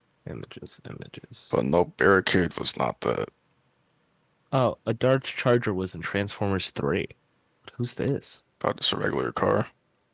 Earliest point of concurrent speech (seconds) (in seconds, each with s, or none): none